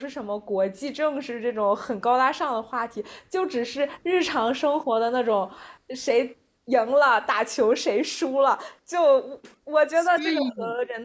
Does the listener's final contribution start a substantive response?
No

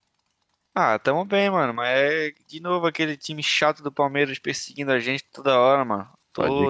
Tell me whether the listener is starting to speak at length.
No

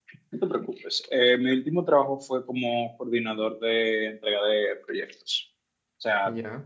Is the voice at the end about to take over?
No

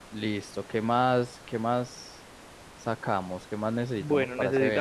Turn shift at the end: Yes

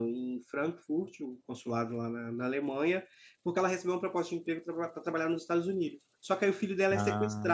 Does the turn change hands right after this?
No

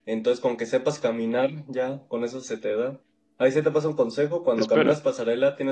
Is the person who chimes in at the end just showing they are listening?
Yes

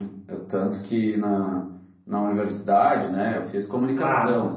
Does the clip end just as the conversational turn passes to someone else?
No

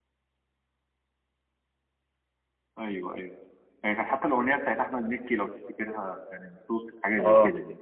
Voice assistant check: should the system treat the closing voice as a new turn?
Yes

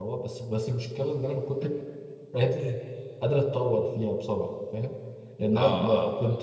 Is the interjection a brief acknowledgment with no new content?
Yes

